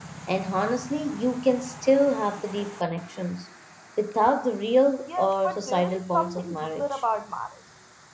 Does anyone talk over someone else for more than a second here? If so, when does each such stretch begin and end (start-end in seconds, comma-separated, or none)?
5.1-6.9